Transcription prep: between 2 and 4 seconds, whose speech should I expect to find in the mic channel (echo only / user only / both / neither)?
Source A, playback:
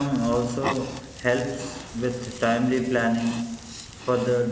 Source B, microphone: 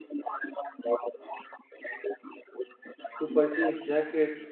both